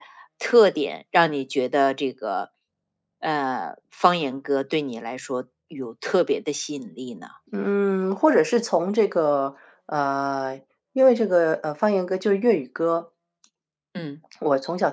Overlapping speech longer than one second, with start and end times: none

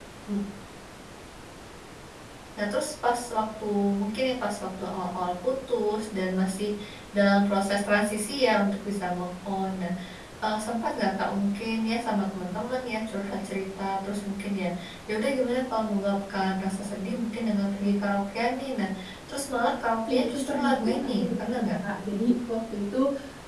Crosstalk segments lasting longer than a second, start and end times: 20.1-21.5

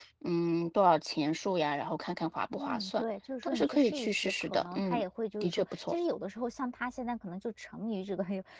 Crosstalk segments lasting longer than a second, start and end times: 3.4-5.0

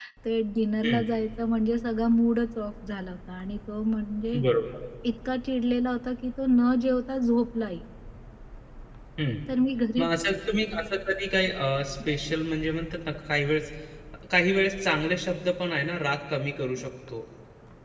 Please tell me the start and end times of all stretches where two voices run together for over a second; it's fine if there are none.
none

